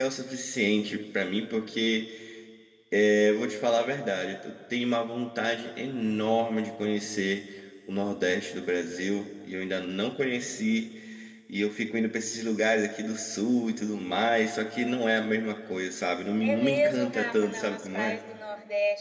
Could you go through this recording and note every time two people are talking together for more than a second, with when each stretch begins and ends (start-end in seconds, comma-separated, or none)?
16.4-18.2